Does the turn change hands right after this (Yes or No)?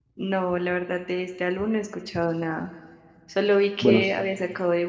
No